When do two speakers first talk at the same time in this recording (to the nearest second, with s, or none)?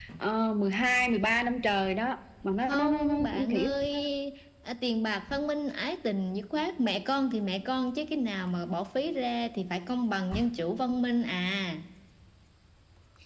3 s